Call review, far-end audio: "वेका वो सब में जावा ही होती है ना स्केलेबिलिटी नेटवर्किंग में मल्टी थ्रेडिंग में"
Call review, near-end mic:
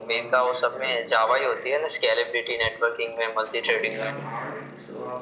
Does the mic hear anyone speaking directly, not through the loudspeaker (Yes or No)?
Yes